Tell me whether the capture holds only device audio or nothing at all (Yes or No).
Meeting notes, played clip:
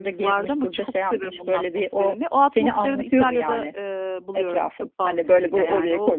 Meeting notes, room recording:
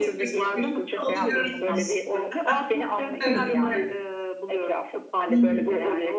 No